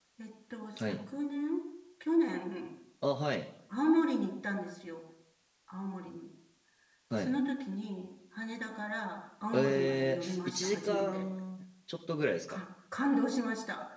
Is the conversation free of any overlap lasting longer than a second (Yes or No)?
No